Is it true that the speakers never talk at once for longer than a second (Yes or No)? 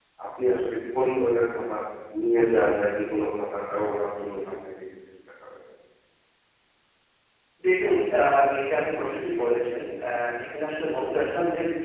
Yes